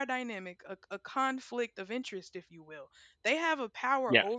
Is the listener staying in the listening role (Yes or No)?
Yes